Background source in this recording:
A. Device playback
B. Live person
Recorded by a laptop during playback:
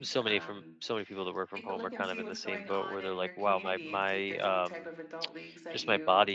A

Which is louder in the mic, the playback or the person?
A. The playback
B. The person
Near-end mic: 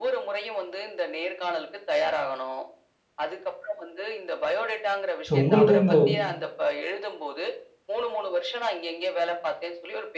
B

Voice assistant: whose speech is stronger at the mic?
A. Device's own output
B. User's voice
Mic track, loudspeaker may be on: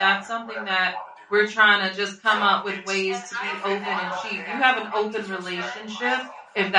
B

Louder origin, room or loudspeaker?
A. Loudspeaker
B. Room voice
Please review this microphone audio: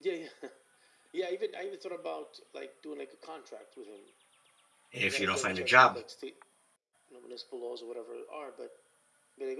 B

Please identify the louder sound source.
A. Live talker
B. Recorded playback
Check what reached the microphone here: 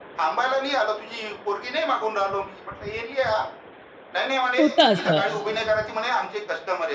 A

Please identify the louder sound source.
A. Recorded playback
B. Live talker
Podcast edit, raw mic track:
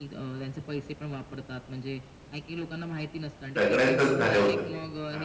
B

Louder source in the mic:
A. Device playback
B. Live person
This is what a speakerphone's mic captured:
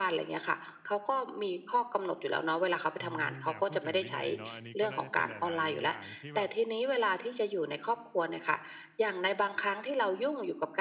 A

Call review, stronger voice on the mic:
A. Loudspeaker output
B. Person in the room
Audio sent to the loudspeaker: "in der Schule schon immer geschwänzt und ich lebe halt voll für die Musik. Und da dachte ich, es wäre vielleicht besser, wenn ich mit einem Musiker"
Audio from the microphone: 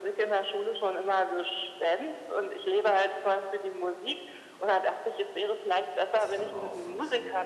A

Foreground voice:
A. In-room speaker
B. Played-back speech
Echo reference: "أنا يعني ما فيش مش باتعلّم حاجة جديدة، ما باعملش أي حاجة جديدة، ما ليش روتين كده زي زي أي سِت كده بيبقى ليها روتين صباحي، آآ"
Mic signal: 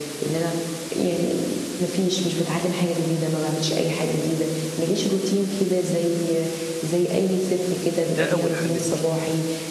B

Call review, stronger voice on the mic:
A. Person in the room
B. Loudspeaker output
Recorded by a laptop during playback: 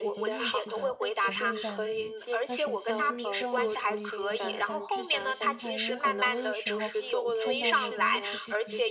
B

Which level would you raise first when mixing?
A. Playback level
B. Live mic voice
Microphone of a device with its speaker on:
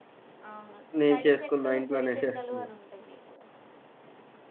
A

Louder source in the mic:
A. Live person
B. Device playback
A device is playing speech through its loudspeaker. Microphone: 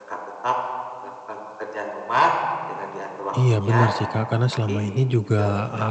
A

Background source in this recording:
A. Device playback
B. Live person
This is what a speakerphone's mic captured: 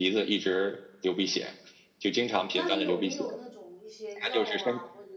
B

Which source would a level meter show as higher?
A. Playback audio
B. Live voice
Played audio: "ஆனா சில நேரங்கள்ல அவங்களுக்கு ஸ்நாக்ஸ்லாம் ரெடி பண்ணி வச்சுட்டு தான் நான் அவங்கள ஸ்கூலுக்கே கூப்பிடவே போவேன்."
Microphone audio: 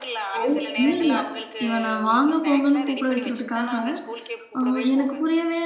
B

